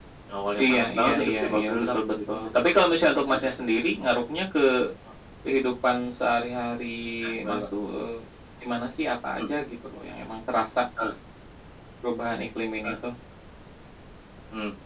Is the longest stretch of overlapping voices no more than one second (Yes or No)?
No